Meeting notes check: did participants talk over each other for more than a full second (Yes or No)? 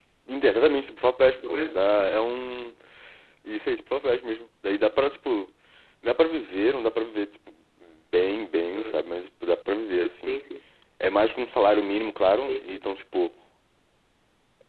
No